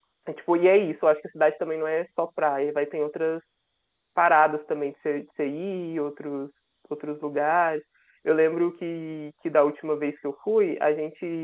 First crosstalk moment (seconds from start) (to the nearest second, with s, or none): none